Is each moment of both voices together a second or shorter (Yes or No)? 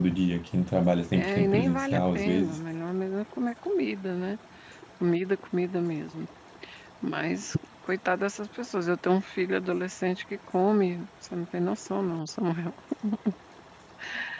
No